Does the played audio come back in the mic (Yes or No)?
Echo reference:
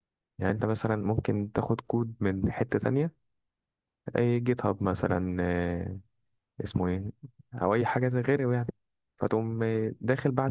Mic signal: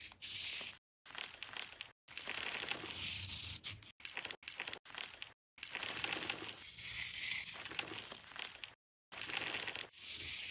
No